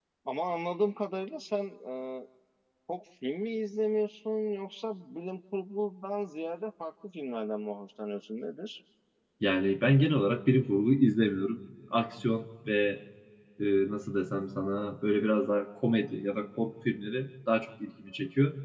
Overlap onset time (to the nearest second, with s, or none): none